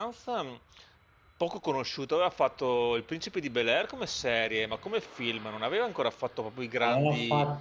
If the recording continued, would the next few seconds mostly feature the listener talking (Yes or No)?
Yes